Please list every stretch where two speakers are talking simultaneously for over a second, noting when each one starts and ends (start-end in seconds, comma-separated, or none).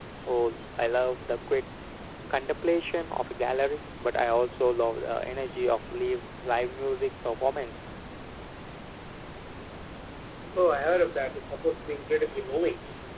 none